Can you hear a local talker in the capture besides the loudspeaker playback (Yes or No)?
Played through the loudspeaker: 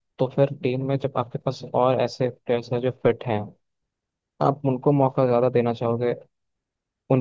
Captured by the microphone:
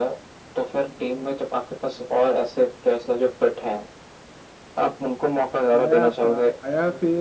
Yes